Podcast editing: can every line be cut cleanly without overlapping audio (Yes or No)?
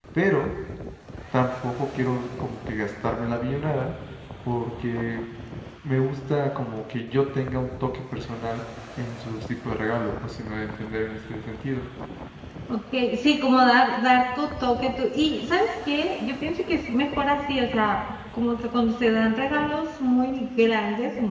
Yes